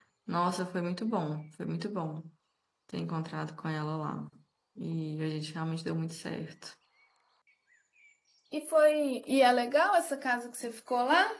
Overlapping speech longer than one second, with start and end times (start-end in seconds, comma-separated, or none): none